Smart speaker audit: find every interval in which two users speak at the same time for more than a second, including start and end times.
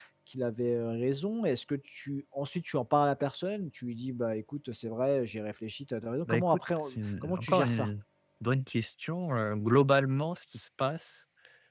6.2-7.9

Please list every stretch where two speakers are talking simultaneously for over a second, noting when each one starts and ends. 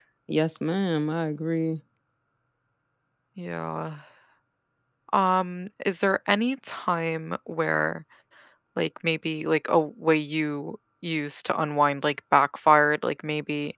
none

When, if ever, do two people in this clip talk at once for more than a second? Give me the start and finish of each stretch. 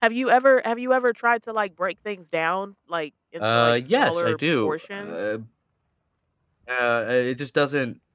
3.4-5.2

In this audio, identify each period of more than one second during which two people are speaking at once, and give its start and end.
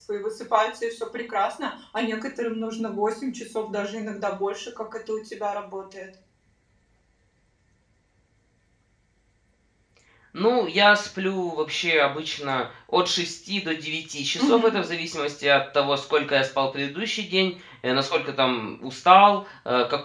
none

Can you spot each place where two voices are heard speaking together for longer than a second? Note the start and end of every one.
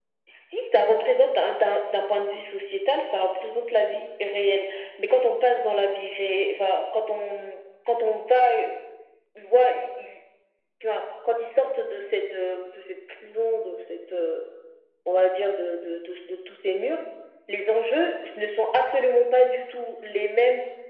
none

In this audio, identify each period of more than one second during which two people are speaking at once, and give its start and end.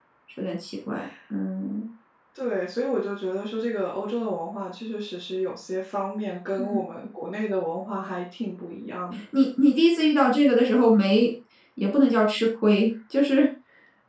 none

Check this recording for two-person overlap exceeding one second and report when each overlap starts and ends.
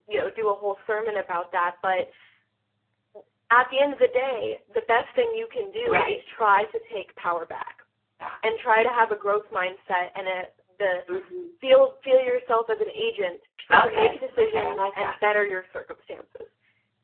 13.7-15.1

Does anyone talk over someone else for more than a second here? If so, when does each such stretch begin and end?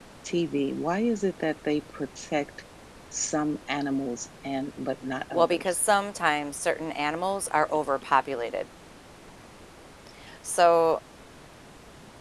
none

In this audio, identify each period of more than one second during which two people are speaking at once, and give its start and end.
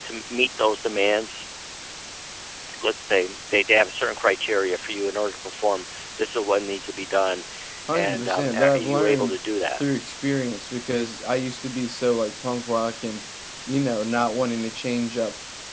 7.9-9.4

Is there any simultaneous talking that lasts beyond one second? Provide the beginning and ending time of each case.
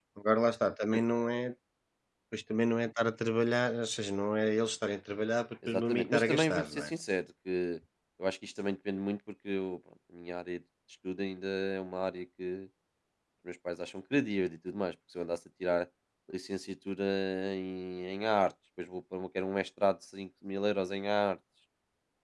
5.7-6.9

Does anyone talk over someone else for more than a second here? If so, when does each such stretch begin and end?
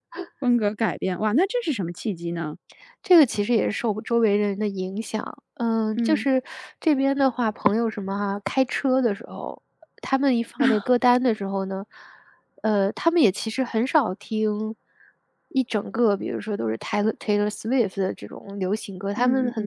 none

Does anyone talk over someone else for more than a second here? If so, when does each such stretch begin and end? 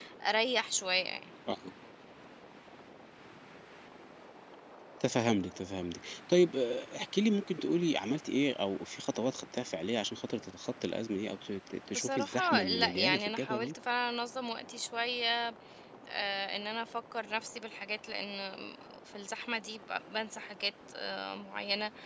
11.9-13.7

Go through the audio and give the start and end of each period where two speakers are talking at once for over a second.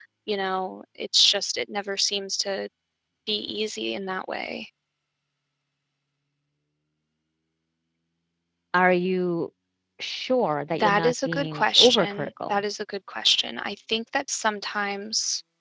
10.7-12.6

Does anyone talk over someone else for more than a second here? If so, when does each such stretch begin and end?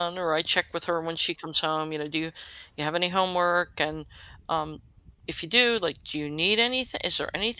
none

